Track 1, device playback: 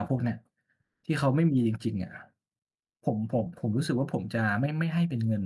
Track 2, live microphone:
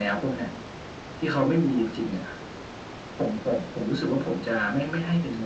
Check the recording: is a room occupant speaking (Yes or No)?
No